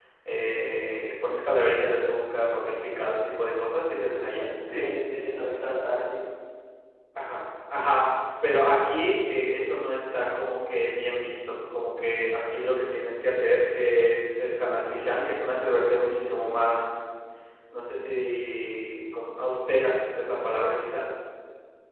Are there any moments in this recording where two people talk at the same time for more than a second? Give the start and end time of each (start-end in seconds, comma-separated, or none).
none